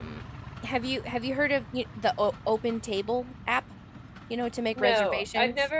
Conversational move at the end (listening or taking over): taking over